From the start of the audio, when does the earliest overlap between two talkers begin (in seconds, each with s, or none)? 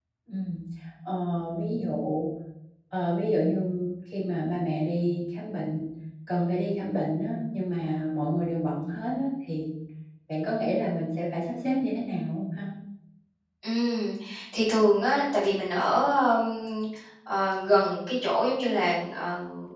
none